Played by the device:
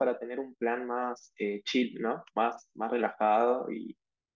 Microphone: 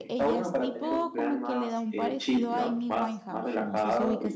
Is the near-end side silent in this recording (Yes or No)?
No